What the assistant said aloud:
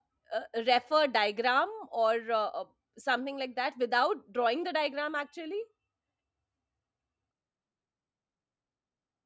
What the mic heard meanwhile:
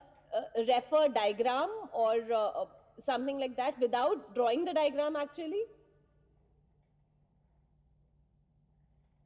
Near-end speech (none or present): none